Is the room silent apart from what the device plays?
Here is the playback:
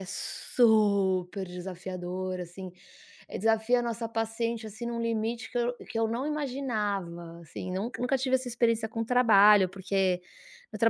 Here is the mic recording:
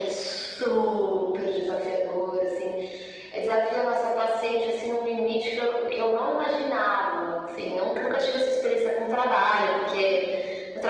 Yes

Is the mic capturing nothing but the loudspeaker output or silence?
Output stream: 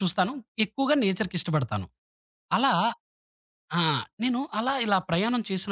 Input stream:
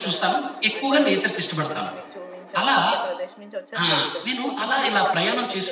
No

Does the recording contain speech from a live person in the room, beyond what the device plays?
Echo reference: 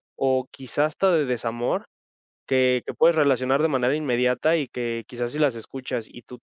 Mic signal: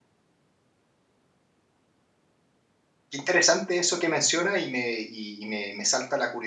Yes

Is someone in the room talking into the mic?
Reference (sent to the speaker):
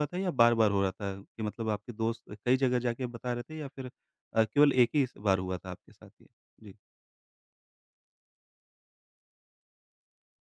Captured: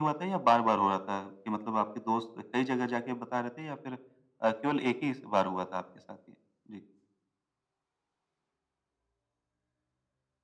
No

